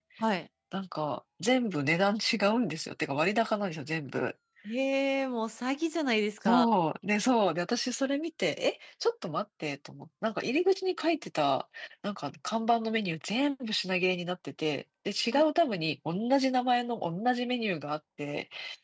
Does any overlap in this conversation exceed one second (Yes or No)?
No